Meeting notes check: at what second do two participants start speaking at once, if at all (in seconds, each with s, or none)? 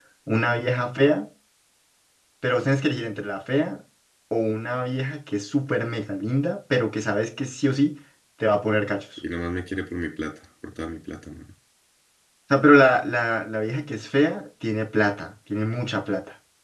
none